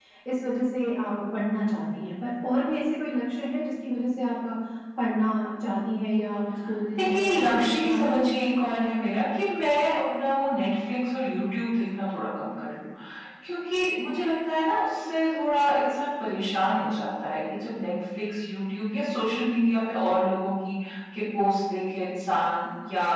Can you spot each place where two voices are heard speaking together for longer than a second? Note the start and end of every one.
7.0-8.6

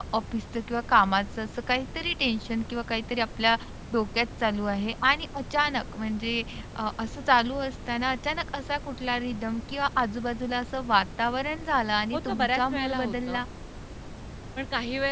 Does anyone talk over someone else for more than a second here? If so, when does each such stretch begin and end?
12.1-13.4

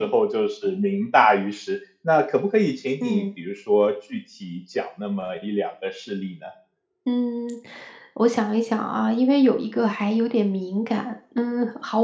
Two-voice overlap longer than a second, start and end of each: none

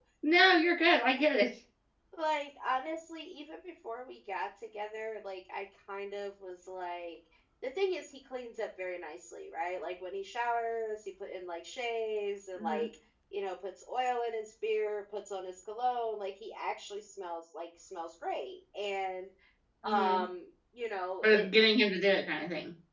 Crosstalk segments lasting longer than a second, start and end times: none

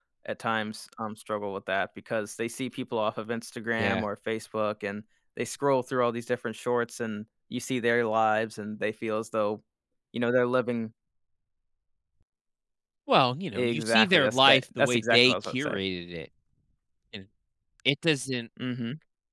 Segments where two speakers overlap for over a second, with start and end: 13.6-15.8

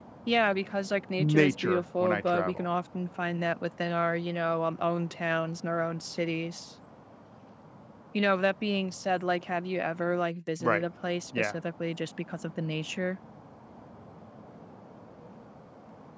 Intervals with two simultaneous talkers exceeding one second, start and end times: 1.2-2.6

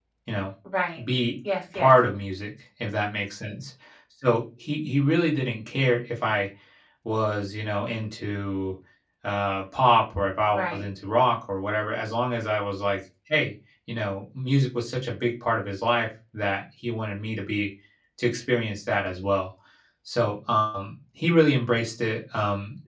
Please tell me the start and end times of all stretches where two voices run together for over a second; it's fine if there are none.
none

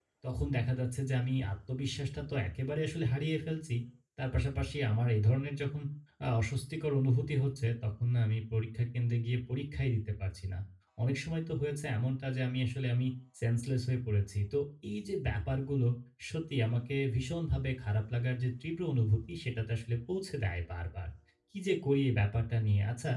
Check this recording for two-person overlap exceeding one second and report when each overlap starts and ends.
none

